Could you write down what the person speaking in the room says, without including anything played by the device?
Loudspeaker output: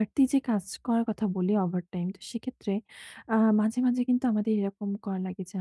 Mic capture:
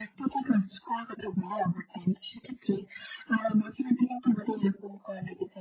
none

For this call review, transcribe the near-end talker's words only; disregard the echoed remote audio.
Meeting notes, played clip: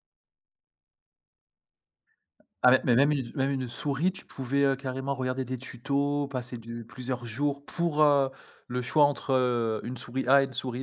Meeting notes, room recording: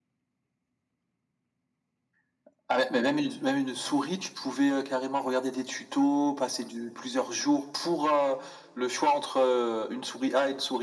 none

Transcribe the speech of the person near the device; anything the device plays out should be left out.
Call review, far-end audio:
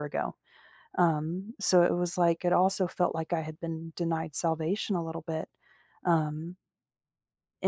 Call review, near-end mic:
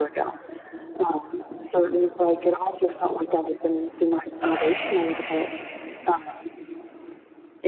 Okay, okay.

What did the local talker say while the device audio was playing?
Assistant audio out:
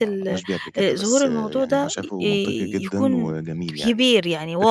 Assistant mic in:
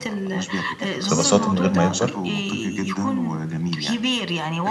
ببساطة من غير ما يكبر،

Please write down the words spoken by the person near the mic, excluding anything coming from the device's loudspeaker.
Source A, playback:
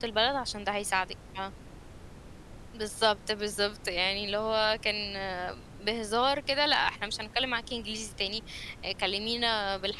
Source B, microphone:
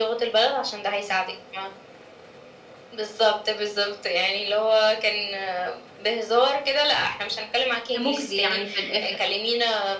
مُجزي يعني في الآخر.

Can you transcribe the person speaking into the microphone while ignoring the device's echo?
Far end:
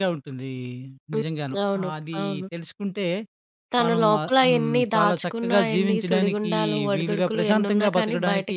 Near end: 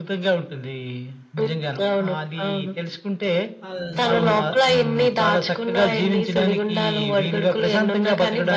ఆహ్, సో,

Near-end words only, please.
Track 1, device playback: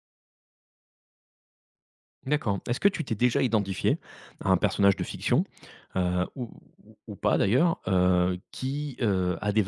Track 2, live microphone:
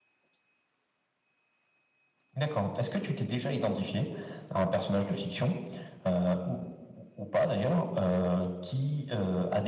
none

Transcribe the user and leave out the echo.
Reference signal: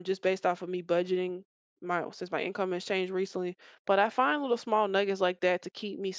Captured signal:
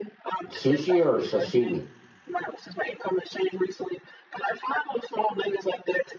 Sushi or sashimi?

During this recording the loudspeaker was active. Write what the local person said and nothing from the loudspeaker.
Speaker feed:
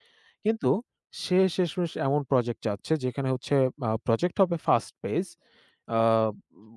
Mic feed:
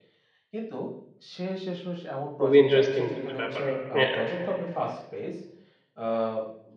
খুবই ইন্টারেস্টিং একটা ব্যাপার। হ্যাঁ,

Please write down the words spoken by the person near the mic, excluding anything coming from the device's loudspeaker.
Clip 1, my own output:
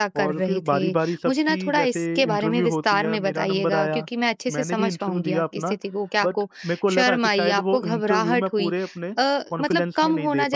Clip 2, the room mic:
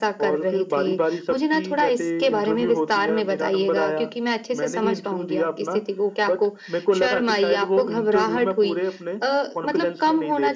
none

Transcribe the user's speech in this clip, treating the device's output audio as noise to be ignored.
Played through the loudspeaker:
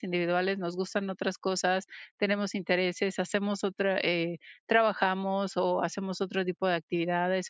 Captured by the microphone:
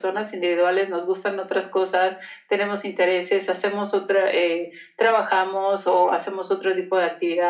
none

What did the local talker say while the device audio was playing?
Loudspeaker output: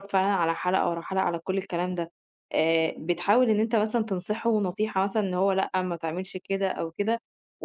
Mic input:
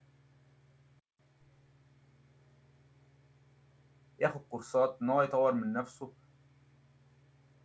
ياخد كورسات، إن هو يطوّر من نَفْسه،

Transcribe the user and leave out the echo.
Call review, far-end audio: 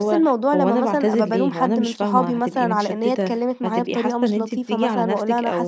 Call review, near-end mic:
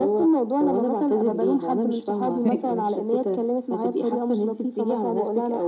فاهماكِ.

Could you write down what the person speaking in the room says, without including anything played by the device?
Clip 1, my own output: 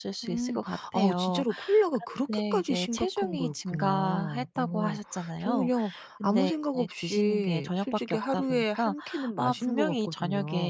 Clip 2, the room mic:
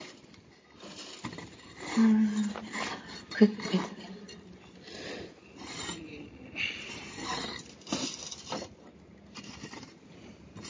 음. 그게 이제

